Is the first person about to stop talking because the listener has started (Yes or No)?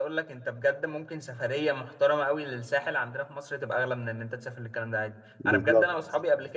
No